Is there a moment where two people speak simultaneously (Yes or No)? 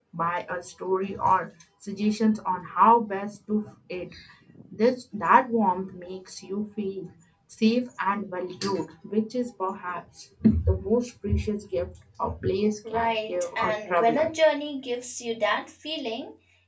Yes